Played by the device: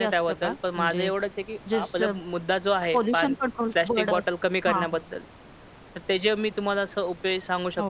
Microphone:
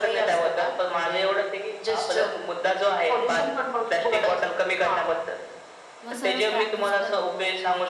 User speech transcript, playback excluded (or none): किंवा सरळ बॅनच करावं,